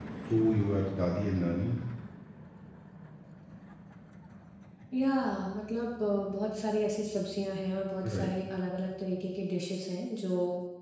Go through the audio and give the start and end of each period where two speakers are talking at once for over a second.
none

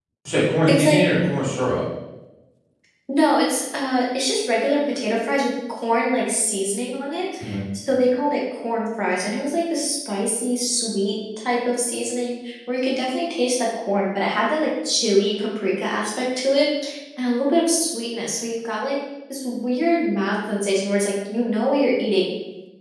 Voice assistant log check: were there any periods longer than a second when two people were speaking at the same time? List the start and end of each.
none

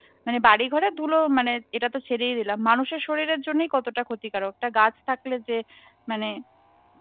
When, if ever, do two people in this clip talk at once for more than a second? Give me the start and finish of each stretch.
none

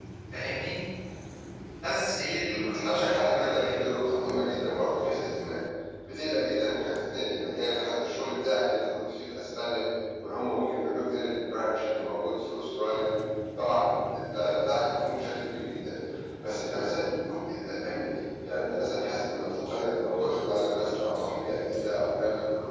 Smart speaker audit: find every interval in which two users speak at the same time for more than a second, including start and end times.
2.5-3.7

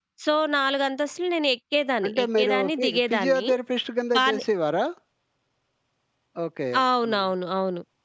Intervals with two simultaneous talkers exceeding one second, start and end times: 2.0-3.5

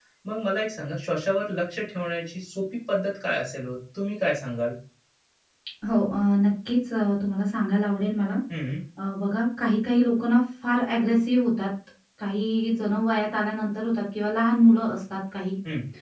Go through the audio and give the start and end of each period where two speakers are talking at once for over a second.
none

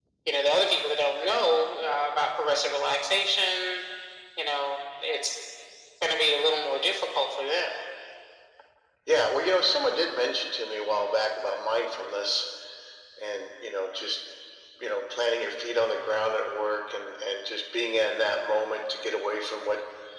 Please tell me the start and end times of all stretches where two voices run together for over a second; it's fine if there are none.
none

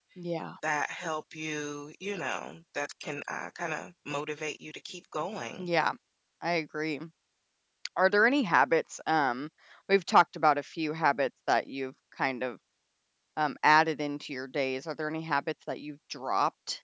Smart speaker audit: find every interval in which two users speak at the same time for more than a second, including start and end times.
none

